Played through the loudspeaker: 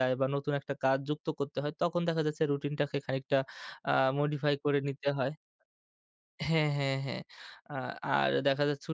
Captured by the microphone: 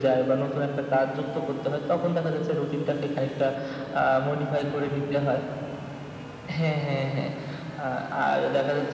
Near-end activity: none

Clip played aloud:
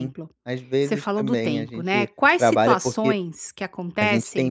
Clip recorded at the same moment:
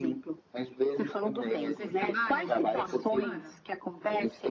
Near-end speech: present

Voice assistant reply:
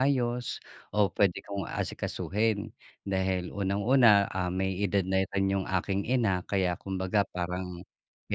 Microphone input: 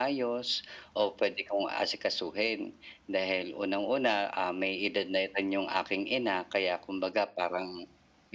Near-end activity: none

